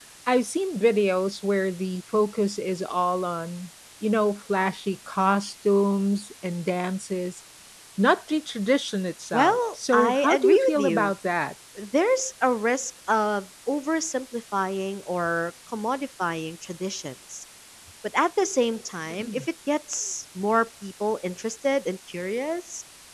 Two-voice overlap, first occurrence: 9.3 s

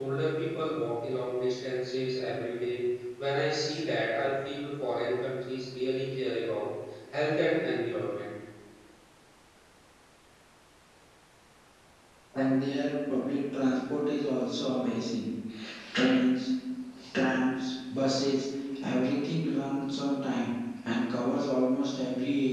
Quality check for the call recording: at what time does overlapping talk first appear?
none

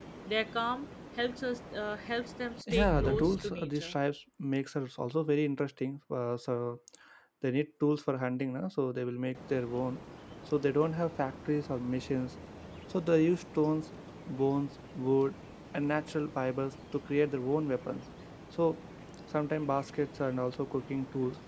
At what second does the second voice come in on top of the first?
2.7 s

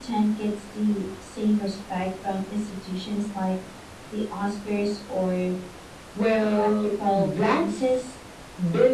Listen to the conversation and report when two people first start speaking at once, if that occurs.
6.4 s

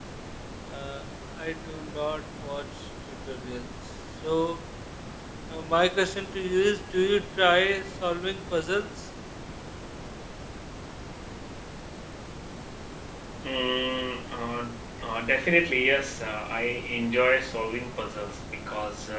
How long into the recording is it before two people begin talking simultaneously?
none

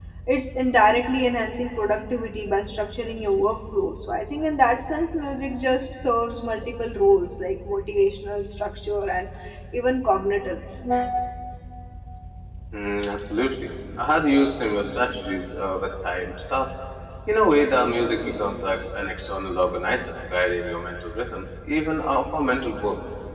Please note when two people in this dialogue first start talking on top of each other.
none

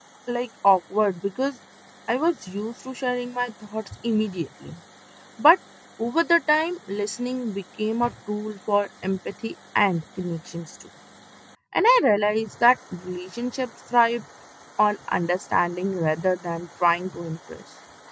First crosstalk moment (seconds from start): none

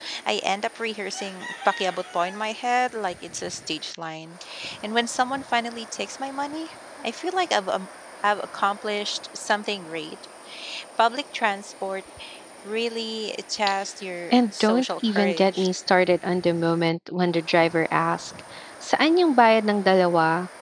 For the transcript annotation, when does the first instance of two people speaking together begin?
14.3 s

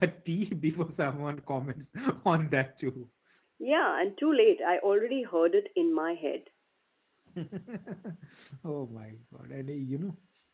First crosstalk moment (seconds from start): none

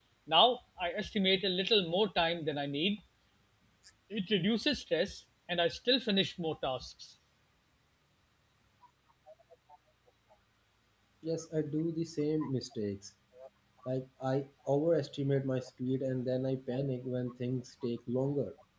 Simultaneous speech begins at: none

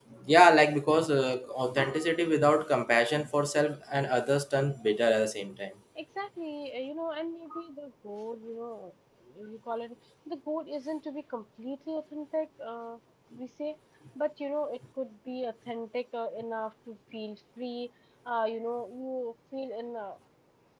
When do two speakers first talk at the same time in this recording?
none

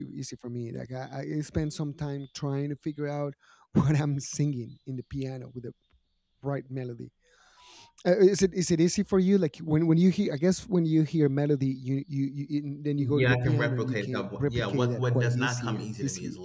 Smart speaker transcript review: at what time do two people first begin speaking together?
13.0 s

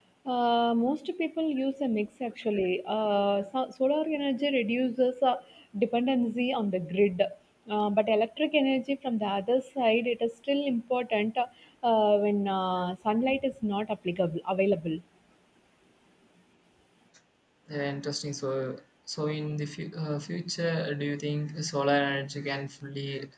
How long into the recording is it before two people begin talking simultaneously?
none

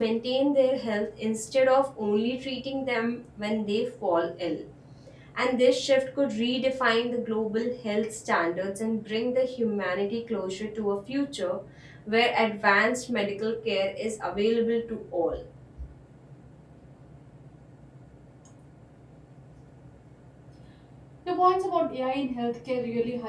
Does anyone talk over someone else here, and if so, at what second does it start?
none

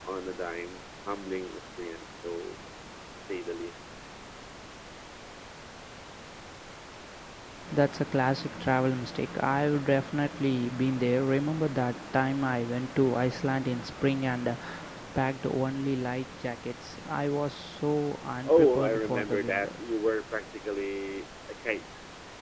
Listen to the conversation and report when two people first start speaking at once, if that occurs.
18.4 s

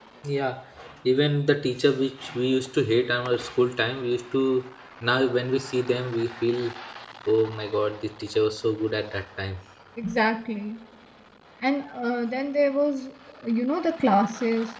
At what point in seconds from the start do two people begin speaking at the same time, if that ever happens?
none

